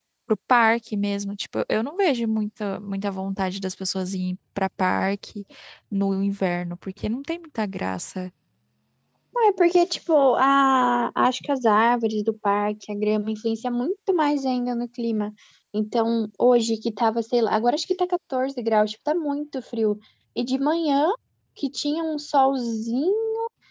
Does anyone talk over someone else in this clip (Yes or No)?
No